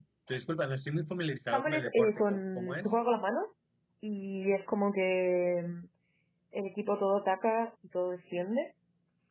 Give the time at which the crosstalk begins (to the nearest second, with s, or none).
2 s